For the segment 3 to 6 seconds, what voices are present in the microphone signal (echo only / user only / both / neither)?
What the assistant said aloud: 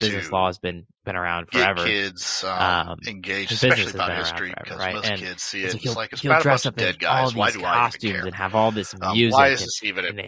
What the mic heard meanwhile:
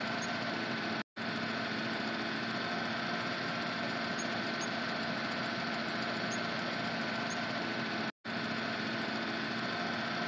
neither